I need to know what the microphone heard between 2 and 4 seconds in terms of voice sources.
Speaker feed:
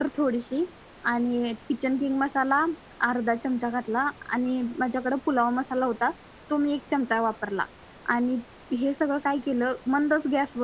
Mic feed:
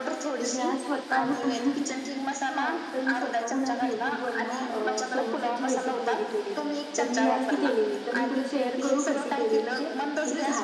both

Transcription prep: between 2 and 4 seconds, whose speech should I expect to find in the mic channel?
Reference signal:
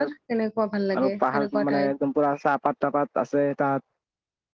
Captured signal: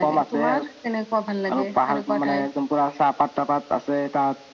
echo only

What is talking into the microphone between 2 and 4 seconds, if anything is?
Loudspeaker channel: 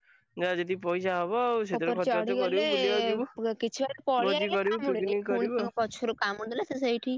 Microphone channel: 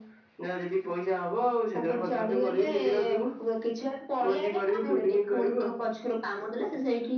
echo only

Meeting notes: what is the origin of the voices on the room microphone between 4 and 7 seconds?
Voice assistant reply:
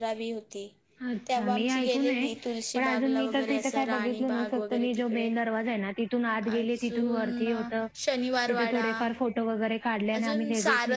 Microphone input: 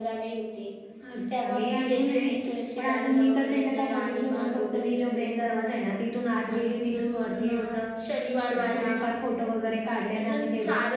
echo only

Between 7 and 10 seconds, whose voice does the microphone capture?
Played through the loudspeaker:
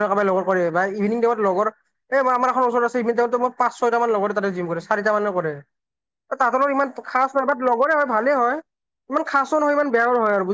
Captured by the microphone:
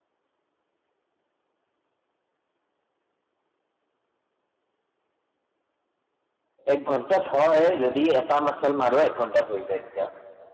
user only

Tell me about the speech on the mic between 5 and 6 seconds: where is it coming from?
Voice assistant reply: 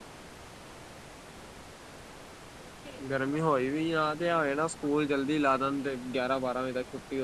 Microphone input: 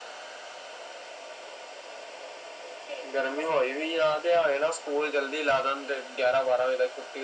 echo only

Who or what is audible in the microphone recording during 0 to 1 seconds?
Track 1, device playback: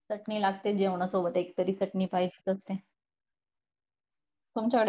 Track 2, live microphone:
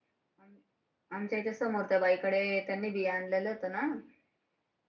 neither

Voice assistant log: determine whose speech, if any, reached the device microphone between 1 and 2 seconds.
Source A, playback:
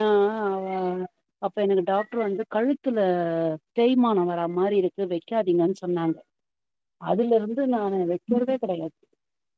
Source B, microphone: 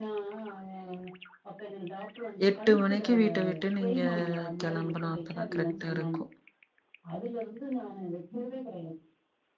echo only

